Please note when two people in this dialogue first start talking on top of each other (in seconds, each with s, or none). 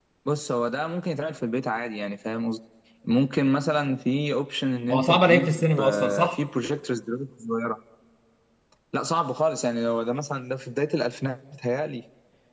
4.9 s